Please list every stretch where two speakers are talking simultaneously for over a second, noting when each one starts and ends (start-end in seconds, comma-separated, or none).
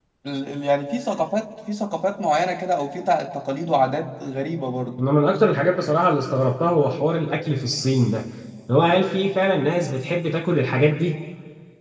none